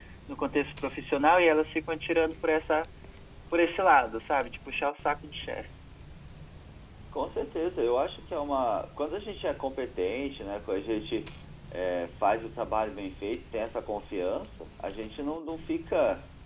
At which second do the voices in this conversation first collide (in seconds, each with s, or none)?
none